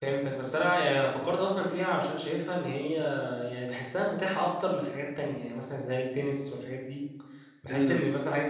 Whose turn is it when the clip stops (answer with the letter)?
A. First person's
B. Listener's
A